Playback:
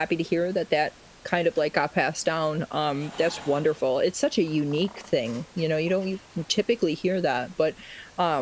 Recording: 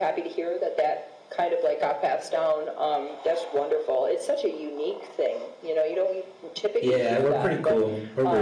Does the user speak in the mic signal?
Yes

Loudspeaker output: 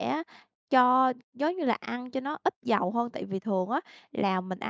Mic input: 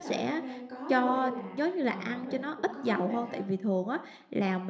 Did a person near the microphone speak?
Yes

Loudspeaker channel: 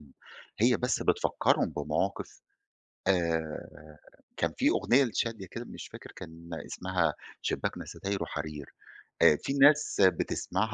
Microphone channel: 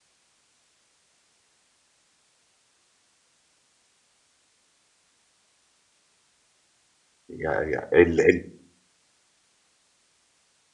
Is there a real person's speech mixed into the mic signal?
Yes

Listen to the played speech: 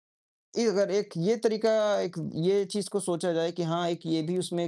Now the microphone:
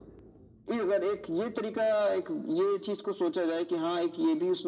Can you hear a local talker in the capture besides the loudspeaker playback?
No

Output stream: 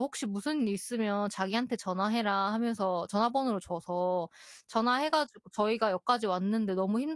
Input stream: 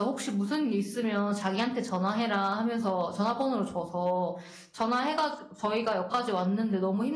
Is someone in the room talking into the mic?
No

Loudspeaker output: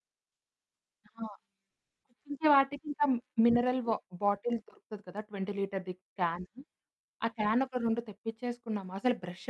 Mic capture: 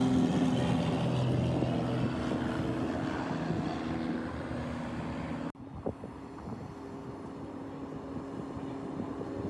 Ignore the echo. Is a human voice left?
No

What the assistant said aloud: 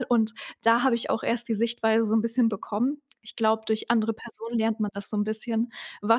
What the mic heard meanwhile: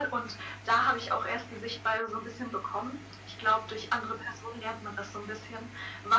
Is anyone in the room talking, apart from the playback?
No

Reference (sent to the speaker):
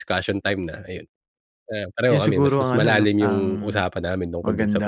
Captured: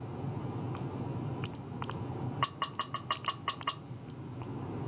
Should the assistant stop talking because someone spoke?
No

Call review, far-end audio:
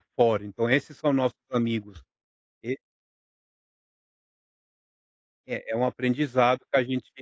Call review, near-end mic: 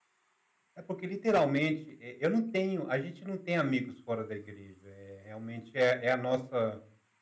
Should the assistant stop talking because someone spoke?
Yes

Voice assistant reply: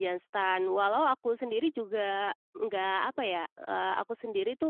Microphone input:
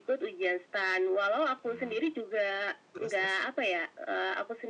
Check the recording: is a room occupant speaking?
Yes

